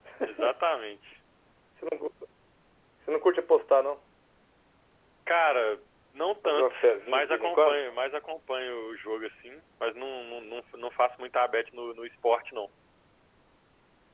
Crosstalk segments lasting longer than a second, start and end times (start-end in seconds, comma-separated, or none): 6.4-7.8